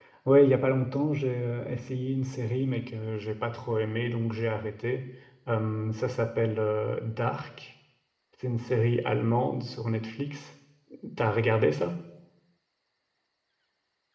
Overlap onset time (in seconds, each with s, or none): none